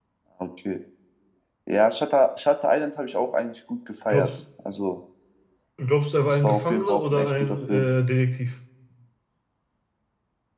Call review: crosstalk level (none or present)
present